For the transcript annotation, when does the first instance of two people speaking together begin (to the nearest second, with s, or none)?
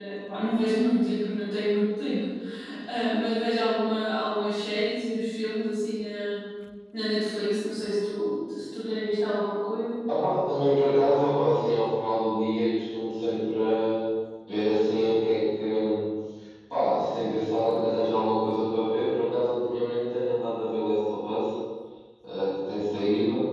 none